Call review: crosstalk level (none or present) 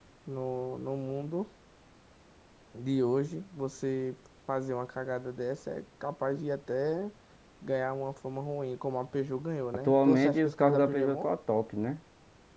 present